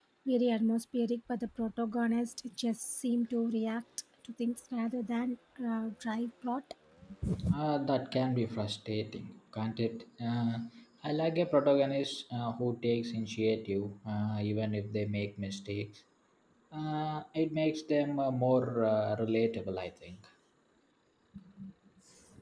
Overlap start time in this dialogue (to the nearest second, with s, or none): none